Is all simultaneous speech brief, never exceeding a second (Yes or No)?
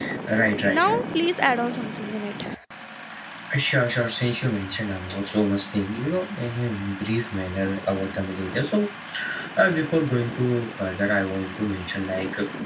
Yes